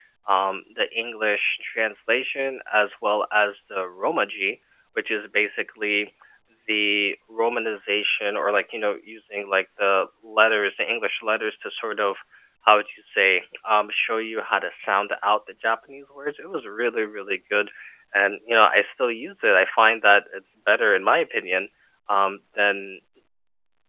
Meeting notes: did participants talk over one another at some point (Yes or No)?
No